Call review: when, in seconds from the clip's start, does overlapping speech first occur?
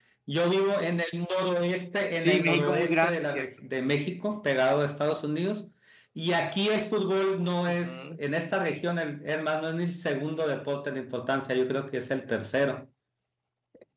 2.2 s

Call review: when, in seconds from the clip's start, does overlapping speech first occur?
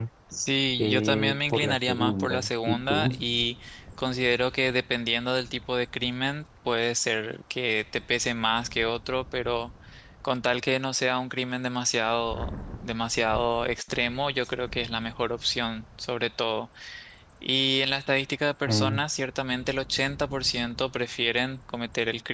0.8 s

